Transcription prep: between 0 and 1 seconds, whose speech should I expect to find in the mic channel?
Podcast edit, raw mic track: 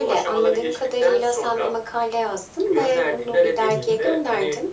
echo only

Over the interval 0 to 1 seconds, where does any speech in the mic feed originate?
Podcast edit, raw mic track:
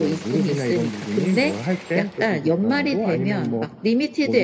echo only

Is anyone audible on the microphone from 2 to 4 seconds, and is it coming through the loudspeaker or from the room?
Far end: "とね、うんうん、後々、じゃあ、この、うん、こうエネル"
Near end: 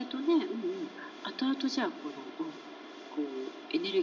echo only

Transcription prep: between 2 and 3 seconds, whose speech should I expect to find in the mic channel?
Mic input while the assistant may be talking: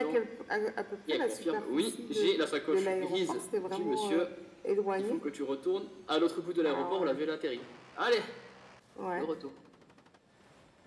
echo only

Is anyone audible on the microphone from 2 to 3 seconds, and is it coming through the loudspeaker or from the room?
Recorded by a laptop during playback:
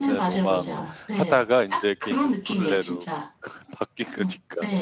both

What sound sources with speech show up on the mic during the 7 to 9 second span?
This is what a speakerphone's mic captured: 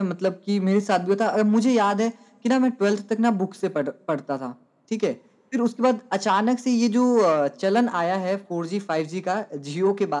echo only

